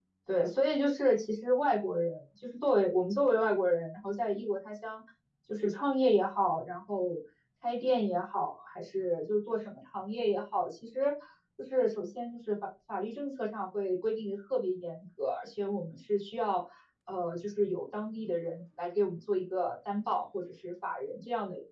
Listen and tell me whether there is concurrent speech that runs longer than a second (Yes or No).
No